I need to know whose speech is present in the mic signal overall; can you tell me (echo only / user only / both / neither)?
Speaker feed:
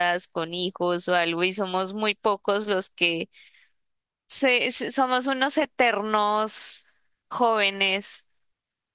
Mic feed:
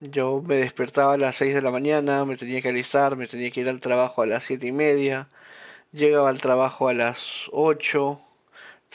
user only